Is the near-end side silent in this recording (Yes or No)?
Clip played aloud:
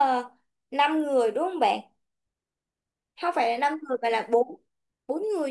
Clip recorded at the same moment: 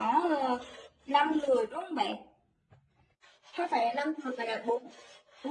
Yes